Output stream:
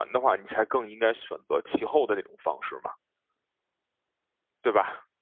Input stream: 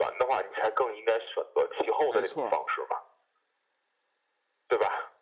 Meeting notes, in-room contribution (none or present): present